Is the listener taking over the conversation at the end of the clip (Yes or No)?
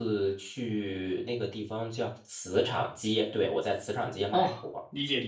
Yes